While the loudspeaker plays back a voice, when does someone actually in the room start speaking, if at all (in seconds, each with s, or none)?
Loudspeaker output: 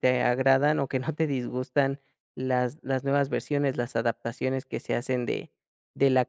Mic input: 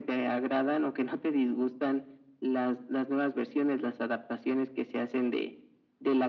none